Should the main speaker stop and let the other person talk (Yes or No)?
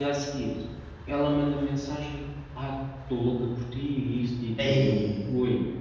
No